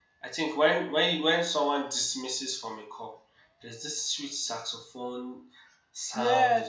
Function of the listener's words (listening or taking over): taking over